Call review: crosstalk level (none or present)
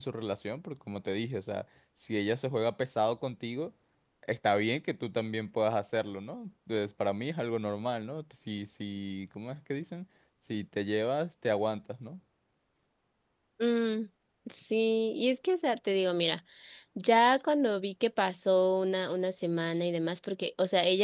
none